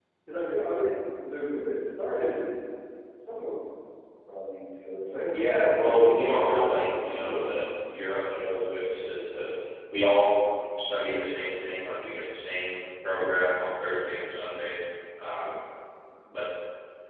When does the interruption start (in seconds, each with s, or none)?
5.3 s